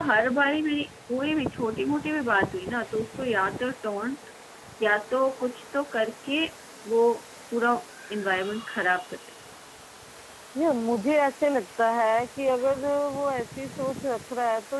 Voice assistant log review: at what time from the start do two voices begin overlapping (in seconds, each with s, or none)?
none